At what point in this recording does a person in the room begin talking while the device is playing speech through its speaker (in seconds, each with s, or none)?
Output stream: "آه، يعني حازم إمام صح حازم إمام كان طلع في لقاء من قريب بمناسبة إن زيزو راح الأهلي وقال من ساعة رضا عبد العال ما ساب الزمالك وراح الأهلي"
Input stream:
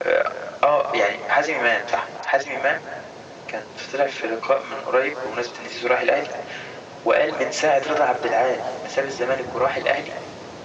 none